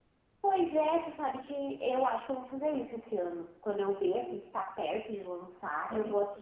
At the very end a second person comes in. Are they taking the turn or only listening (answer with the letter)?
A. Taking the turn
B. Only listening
B